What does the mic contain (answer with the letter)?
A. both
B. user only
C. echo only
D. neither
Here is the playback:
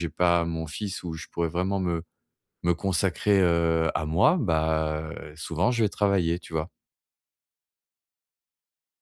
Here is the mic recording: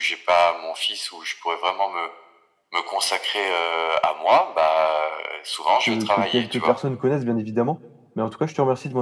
A